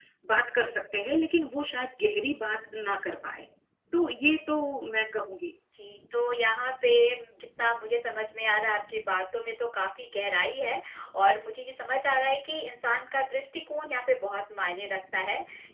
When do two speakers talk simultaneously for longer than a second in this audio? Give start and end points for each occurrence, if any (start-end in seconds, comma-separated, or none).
none